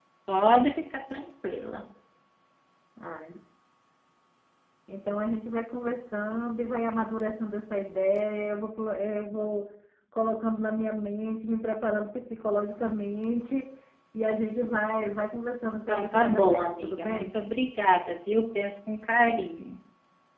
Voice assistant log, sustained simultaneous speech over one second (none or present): present